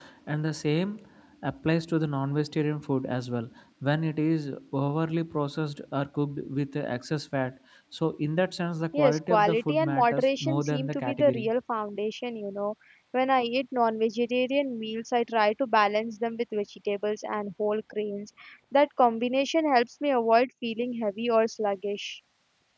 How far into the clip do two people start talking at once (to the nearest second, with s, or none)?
9 s